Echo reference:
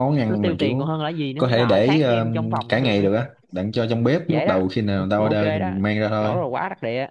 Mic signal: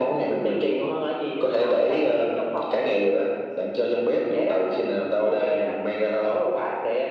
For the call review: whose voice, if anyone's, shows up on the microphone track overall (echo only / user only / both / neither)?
echo only